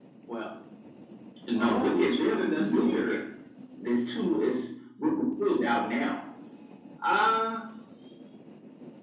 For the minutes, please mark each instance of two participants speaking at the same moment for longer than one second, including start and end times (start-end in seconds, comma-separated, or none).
1.6-3.2